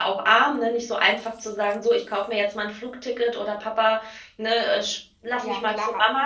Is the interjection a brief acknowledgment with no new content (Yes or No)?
No